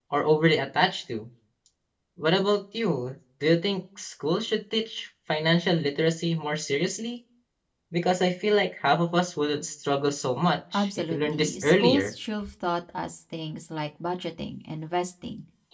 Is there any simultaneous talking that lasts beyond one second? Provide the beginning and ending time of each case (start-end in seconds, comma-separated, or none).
10.7-12.1